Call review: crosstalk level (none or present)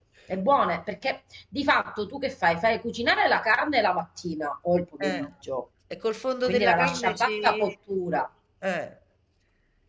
present